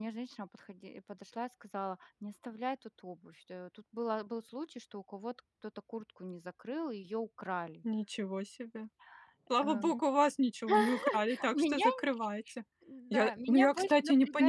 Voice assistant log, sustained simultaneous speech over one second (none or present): present